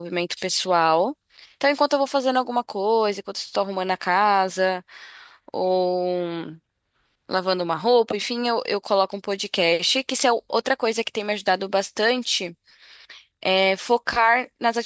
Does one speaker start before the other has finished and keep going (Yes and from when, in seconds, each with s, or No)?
No